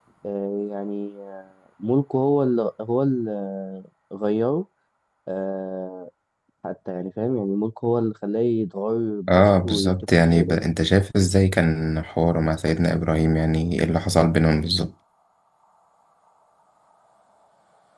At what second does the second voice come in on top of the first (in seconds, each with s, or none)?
9.3 s